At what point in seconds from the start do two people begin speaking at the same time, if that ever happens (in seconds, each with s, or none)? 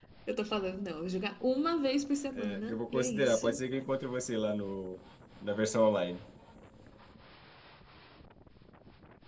2.3 s